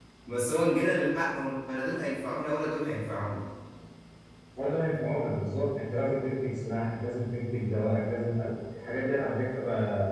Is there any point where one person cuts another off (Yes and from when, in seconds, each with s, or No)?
No